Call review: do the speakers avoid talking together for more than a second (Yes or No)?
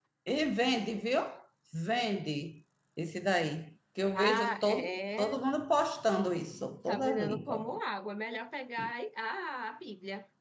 No